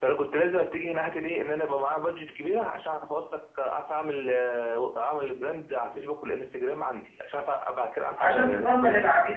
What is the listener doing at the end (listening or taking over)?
taking over